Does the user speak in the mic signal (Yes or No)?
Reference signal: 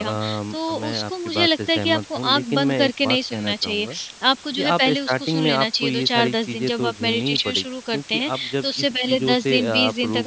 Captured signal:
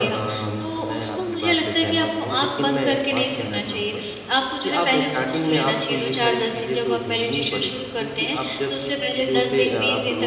No